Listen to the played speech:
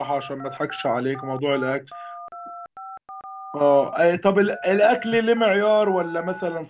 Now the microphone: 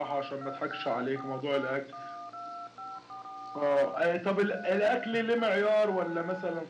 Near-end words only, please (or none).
none